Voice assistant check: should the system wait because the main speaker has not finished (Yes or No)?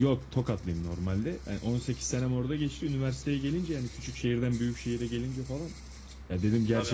Yes